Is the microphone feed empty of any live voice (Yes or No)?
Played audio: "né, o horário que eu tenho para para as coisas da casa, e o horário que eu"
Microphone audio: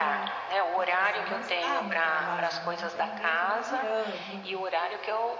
No